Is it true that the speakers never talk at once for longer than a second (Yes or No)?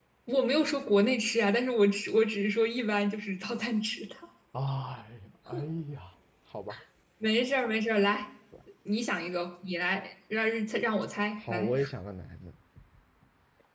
Yes